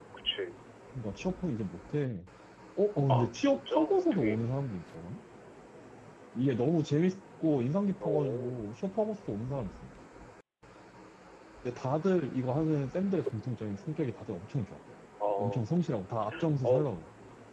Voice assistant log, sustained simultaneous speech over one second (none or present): present